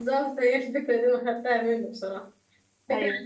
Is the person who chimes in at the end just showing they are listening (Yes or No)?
Yes